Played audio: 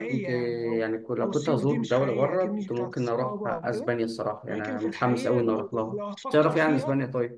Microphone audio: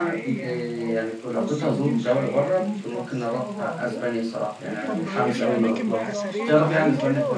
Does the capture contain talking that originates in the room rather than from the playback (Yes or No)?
Yes